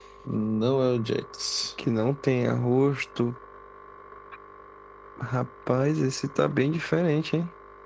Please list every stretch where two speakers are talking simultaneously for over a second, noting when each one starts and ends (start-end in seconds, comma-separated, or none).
none